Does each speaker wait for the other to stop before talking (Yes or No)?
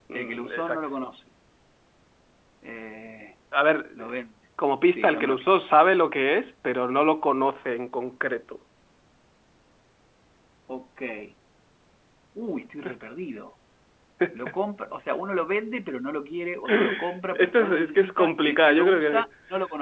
No